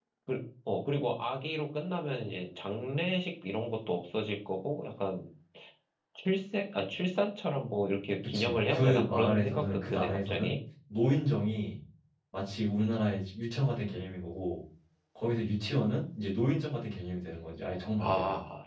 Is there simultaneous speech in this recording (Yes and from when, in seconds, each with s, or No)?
Yes, from 8.2 s